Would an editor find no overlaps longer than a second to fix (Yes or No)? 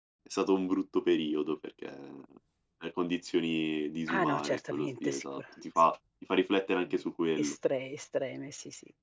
No